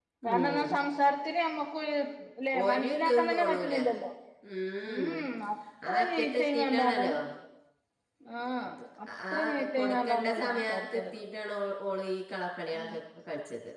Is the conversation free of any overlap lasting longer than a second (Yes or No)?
No